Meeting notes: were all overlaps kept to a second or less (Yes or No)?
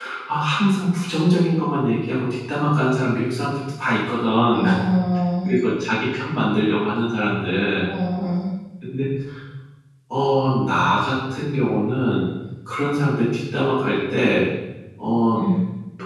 Yes